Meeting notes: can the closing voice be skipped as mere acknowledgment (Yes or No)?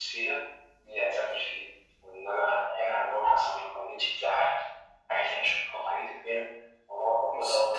No